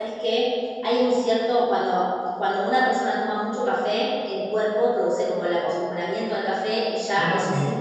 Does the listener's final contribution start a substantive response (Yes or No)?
No